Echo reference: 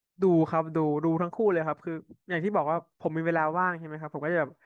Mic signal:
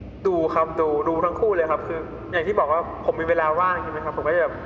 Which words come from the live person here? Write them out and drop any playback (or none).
none